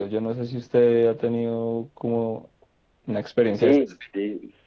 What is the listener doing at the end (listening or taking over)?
taking over